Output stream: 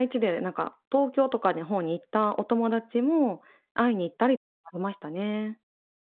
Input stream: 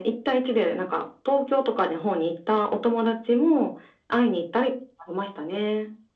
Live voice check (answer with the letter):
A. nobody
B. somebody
A